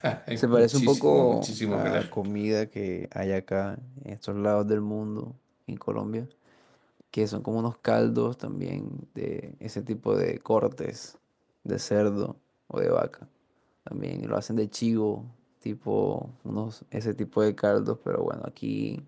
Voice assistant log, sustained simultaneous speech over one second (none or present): present